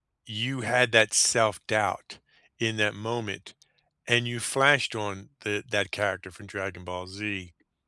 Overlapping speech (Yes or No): No